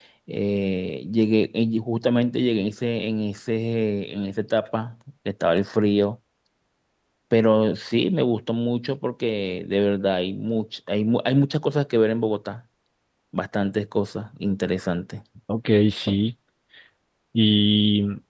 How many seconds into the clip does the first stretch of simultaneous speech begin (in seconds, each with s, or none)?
none